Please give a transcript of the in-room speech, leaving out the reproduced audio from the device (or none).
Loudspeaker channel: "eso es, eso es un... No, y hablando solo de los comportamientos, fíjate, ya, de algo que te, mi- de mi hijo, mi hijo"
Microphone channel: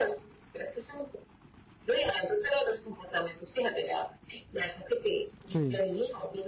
sí.